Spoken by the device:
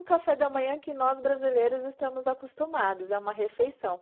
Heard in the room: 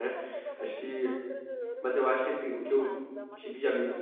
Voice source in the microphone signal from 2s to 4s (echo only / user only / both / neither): both